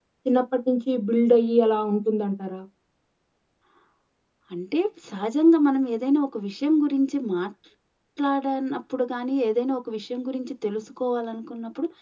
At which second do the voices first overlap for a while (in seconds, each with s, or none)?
none